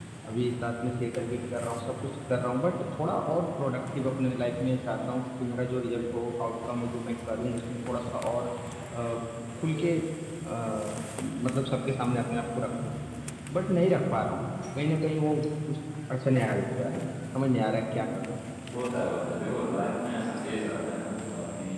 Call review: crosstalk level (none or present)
none